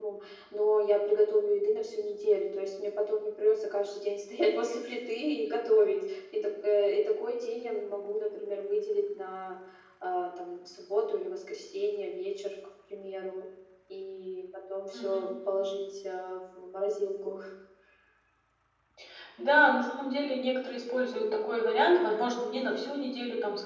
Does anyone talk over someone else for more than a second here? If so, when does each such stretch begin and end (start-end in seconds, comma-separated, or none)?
none